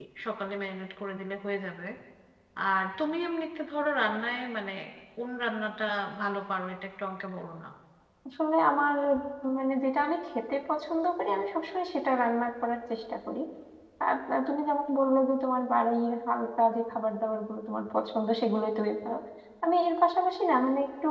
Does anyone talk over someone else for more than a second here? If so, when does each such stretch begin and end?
none

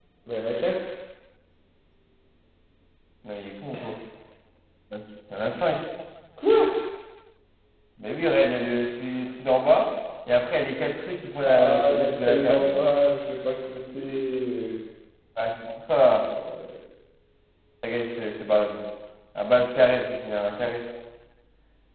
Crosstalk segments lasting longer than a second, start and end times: 11.4-12.7

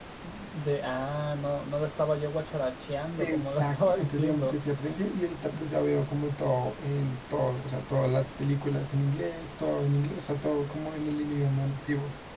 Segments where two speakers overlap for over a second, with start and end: 3.2-4.5

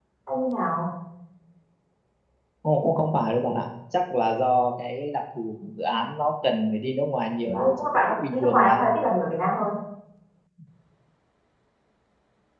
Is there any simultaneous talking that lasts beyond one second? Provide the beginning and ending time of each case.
7.4-8.8

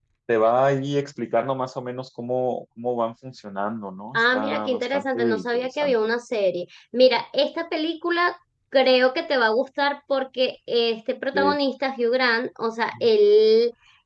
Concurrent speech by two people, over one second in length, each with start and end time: 4.1-6.0

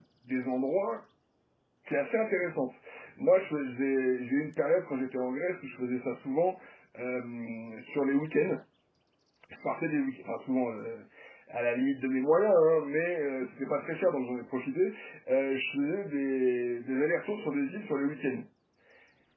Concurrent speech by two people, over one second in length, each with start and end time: none

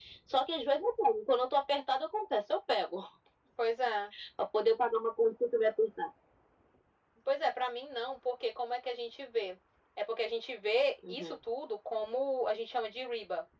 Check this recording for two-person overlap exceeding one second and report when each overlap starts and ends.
none

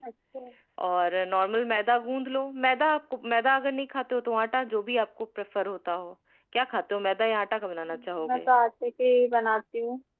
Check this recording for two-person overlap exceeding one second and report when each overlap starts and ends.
none

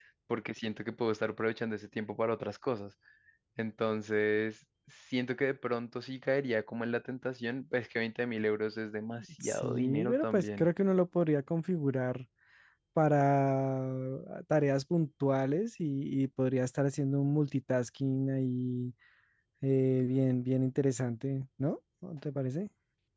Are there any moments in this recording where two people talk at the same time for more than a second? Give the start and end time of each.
9.4-10.7

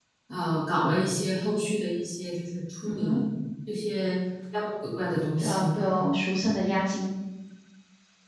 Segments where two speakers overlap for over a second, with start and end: none

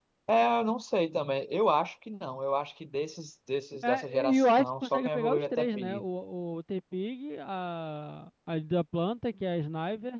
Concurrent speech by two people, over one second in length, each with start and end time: 3.8-6.0

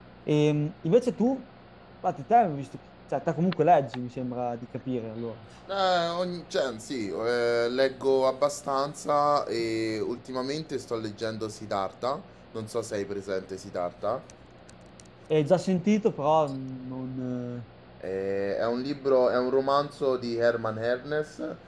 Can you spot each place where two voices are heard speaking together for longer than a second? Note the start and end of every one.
none

